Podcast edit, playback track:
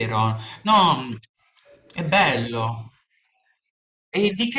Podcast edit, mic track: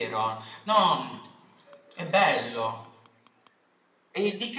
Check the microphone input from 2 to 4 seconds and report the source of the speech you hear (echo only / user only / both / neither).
echo only